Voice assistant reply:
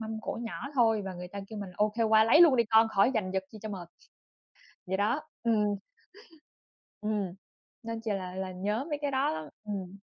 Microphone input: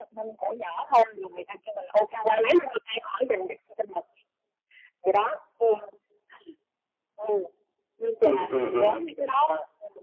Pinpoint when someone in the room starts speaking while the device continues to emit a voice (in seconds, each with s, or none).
8.2 s